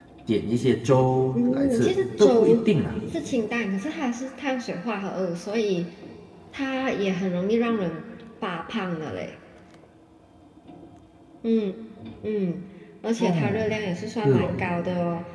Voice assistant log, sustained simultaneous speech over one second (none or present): present